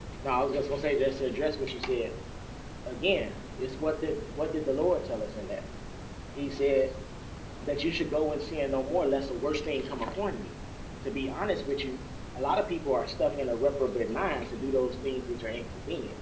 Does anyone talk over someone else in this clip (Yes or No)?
No